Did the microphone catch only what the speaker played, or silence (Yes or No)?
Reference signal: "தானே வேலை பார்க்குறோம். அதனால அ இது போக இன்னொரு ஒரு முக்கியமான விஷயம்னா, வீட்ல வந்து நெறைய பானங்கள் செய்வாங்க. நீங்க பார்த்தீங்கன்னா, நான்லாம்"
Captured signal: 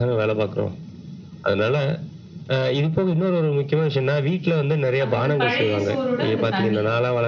No